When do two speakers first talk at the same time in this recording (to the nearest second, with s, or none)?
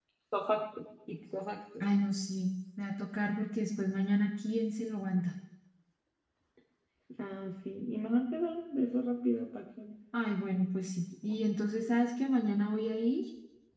none